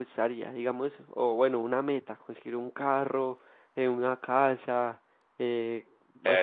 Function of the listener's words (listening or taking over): taking over